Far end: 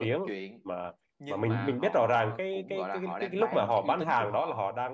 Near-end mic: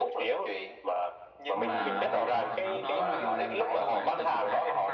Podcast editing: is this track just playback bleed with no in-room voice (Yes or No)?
No